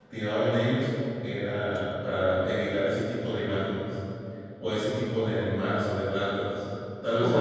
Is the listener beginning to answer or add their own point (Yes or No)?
Yes